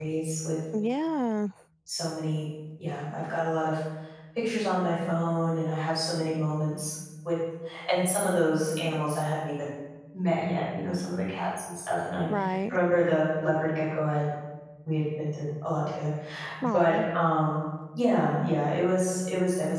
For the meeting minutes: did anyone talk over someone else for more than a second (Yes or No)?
No